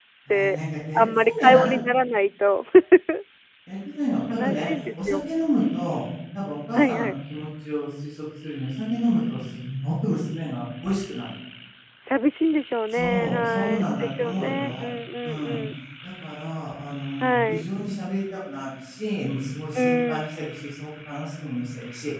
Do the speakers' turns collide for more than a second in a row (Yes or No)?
Yes